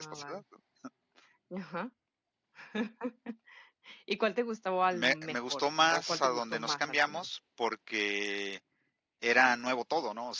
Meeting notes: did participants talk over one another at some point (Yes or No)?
Yes